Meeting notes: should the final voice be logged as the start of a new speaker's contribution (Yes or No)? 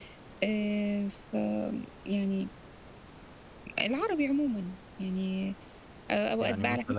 No